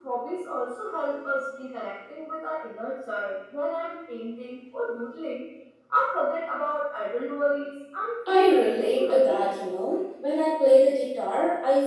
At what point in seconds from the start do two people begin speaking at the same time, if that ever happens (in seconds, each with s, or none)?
8.3 s